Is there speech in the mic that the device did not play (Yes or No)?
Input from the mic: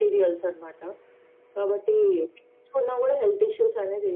No